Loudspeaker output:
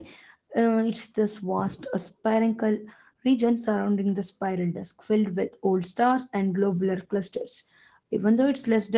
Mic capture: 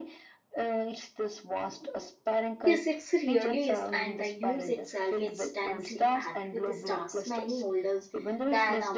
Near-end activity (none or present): present